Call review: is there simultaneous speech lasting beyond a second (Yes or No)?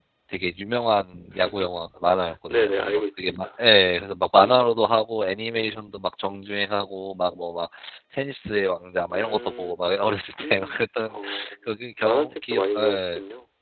Yes